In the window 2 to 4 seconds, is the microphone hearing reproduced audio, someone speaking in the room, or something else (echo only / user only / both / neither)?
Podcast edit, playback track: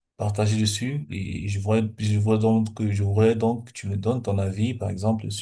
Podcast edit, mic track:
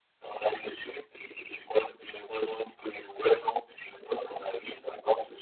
echo only